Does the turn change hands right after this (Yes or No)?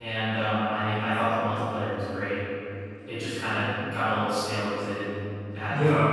Yes